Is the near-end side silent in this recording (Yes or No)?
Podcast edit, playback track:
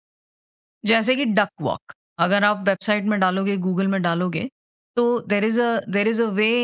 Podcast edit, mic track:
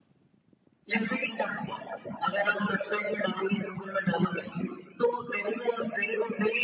Yes